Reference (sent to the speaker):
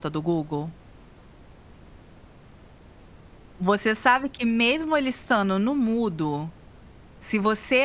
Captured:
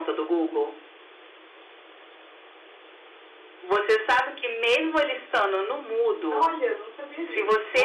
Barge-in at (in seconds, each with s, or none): 6.3 s